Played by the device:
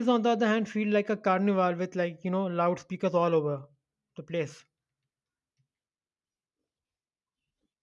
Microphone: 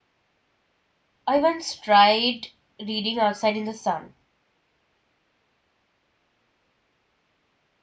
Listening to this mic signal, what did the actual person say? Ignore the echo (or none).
I once tried reading outside in the sun,